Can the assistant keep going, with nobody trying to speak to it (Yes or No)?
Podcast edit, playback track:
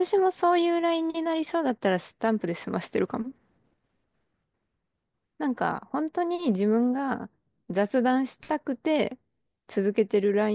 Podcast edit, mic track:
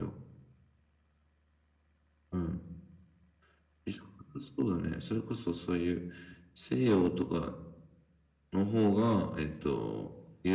No